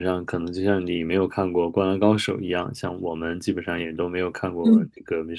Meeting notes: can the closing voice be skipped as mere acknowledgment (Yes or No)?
Yes